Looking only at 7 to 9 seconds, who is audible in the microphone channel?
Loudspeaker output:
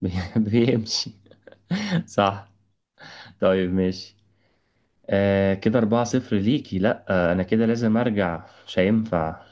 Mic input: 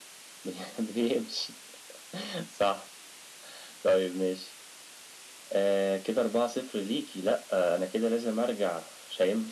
echo only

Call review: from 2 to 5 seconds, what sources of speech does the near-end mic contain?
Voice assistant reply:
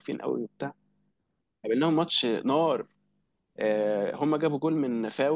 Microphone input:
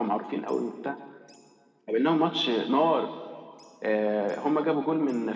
echo only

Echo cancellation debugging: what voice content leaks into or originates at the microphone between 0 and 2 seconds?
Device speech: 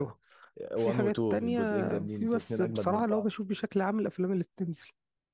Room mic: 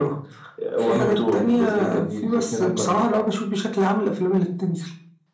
echo only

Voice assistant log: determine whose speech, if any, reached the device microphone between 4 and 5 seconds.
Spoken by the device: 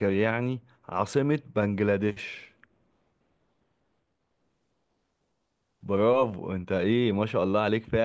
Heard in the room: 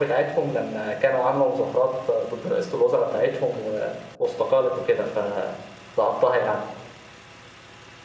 user only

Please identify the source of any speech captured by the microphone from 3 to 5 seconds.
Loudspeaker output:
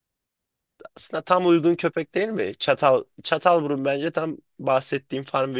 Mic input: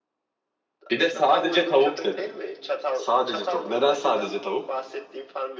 both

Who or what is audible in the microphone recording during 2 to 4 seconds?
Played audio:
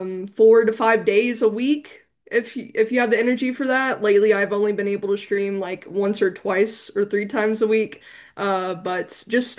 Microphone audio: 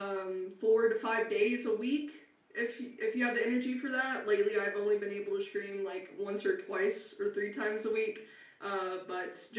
echo only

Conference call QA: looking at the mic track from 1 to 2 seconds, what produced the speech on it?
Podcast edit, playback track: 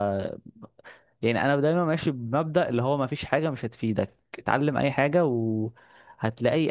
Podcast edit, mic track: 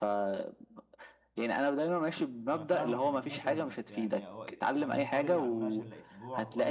echo only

